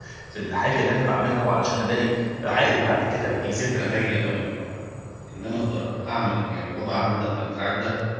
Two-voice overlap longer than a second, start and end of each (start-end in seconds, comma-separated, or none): 2.4-4.0